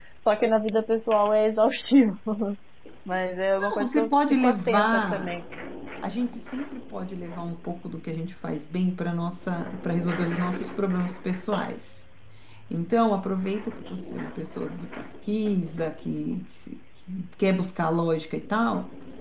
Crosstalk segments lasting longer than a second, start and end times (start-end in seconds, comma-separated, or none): 3.6-5.3